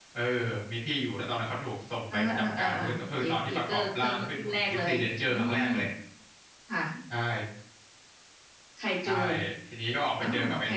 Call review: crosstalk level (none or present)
present